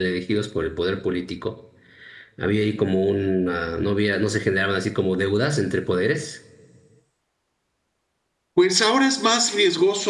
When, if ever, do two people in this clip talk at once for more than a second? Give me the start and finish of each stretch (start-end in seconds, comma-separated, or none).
none